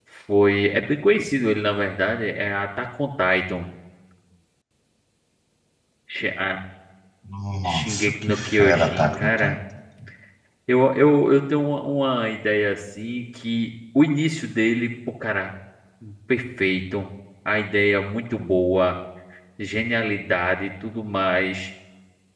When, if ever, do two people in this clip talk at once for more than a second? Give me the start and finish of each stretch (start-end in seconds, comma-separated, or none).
7.6-9.6